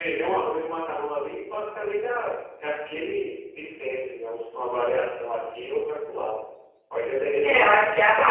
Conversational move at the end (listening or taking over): taking over